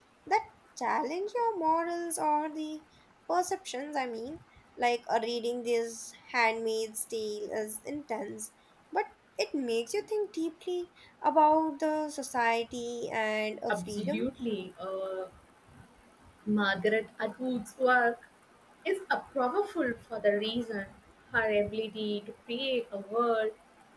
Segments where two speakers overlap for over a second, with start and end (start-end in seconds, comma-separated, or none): none